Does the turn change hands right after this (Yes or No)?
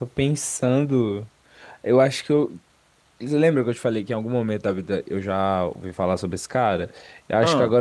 No